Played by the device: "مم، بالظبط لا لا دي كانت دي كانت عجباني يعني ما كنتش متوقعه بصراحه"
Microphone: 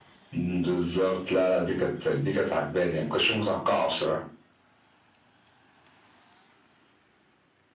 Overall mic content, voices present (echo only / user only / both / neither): echo only